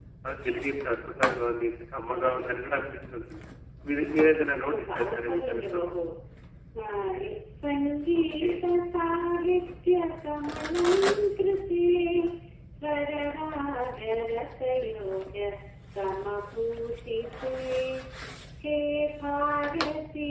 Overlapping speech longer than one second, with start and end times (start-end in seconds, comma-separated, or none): 4.4-5.9